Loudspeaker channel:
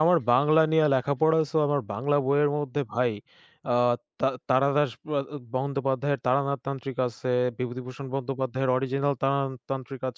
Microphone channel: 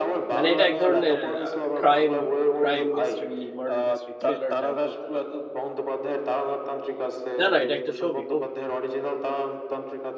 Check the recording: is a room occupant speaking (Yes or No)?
Yes